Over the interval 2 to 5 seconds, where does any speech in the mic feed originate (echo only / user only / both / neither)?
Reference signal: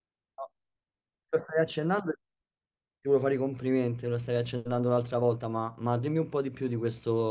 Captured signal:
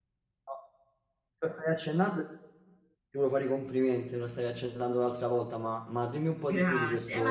echo only